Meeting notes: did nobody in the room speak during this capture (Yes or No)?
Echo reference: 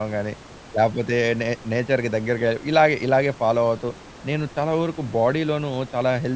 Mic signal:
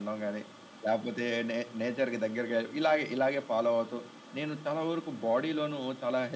Yes